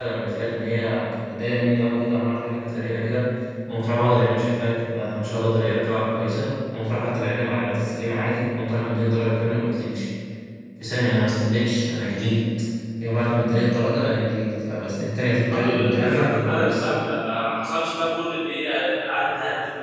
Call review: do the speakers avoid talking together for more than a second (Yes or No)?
No